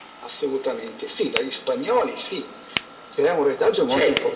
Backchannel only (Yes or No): Yes